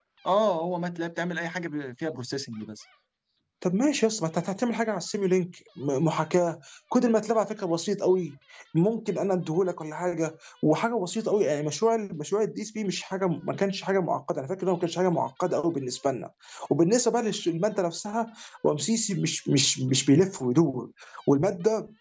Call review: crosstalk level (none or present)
none